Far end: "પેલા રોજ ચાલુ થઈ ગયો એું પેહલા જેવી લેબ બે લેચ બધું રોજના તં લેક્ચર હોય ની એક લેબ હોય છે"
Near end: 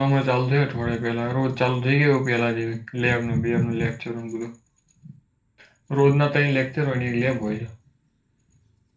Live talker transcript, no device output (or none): none